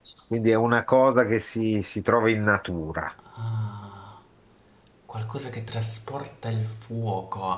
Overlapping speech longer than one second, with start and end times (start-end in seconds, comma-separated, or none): none